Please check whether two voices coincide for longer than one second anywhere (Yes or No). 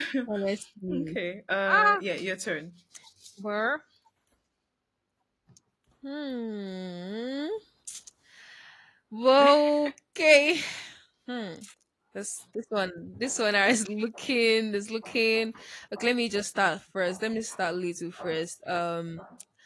No